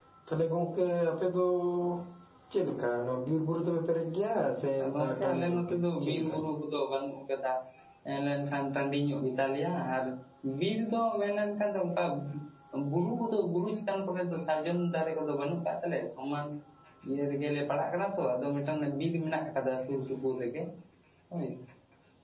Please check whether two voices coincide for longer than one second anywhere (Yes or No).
Yes